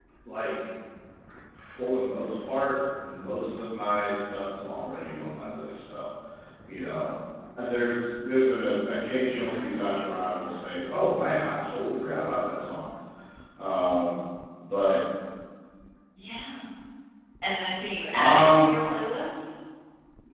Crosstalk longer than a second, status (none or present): none